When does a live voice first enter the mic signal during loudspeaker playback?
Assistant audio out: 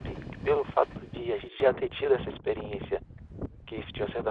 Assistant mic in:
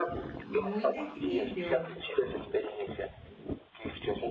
0.5 s

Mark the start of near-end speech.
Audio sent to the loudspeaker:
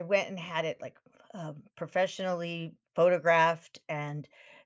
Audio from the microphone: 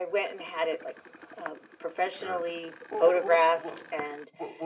2.1 s

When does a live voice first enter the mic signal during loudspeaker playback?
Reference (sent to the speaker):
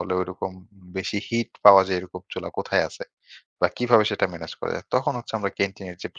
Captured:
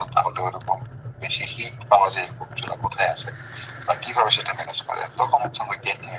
none

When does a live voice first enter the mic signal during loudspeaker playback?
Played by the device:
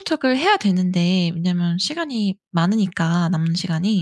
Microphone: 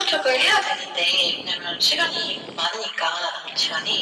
none

